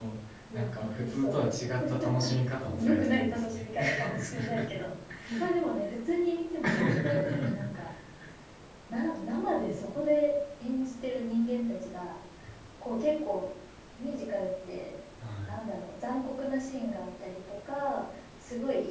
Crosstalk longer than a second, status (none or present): present